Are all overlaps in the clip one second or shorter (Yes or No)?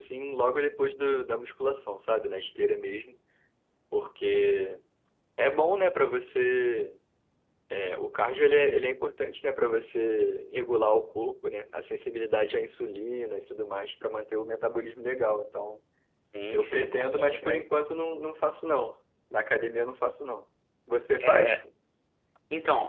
No